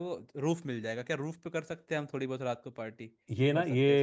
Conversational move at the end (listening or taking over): taking over